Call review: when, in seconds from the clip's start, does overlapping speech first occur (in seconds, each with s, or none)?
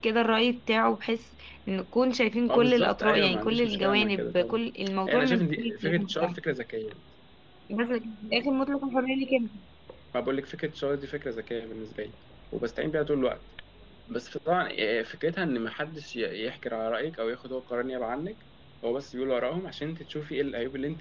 2.5 s